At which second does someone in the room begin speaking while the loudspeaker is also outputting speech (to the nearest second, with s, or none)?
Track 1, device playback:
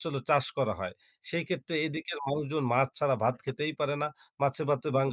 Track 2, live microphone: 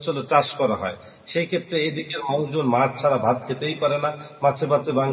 none